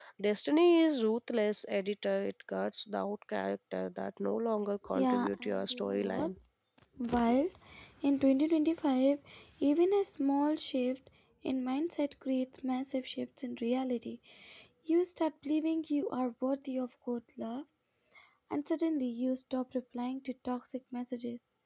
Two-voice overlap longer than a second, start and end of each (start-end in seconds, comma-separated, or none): 4.9-6.3